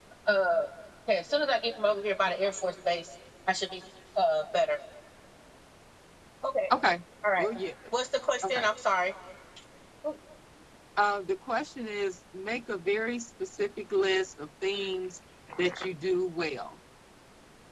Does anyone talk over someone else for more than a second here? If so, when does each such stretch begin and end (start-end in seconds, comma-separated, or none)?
none